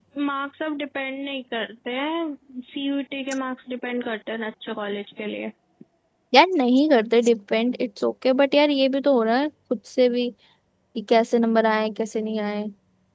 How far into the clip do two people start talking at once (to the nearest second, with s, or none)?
none